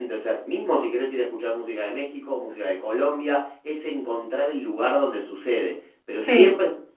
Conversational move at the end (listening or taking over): listening